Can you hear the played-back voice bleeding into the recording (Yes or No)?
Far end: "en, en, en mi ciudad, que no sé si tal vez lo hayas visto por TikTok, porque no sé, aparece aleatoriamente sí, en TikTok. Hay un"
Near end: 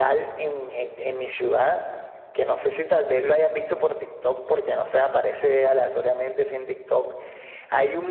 Yes